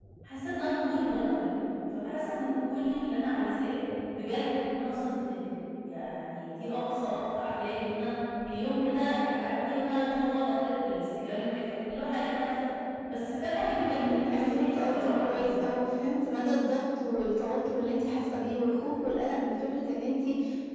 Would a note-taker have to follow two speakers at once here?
Yes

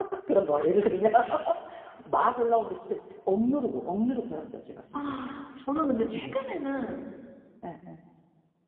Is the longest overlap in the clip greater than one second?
No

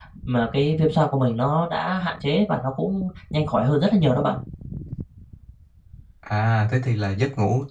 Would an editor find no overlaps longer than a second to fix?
Yes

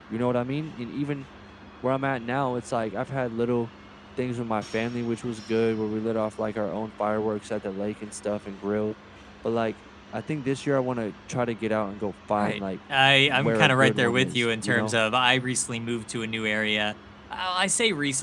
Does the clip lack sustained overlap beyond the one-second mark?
No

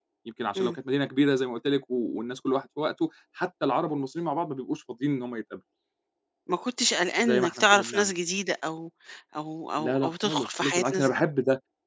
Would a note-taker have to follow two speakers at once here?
Yes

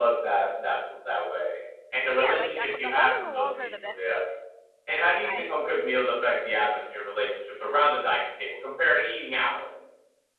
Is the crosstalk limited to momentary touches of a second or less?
No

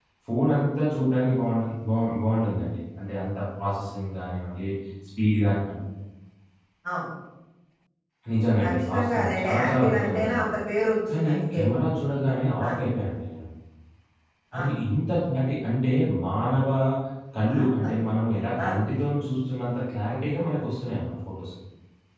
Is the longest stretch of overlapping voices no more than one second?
No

